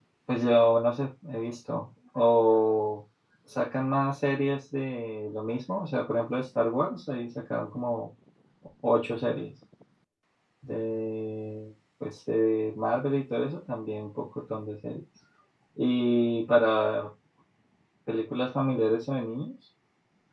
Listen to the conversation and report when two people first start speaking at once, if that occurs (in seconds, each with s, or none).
none